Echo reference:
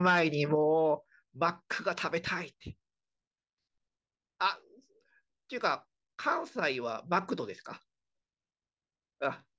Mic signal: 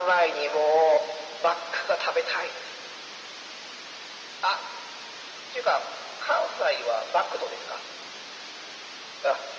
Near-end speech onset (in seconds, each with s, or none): none